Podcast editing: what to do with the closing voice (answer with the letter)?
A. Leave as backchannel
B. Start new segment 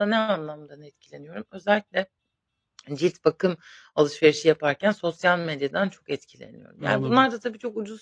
A